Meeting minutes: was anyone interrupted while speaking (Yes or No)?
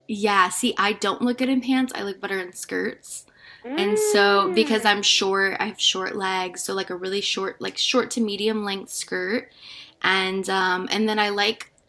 Yes